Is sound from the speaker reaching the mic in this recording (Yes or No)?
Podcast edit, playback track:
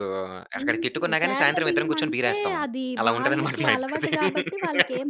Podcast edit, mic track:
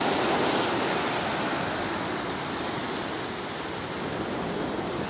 No